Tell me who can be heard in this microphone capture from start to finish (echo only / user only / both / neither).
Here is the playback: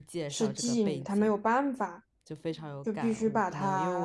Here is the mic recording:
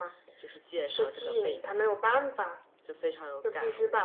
echo only